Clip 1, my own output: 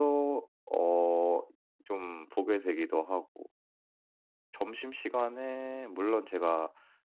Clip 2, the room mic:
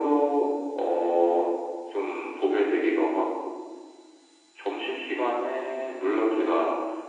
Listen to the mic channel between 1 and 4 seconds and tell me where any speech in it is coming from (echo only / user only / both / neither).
echo only